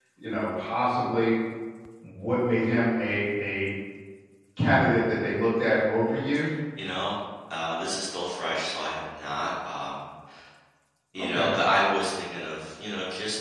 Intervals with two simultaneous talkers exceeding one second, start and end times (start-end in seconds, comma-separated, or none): none